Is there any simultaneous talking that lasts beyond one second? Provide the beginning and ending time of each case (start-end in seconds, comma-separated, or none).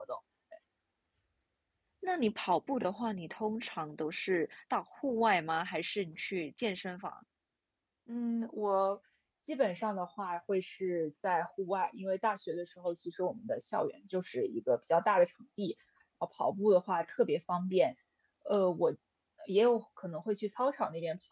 none